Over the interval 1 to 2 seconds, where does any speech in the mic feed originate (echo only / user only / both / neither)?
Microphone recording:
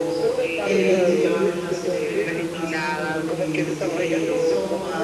both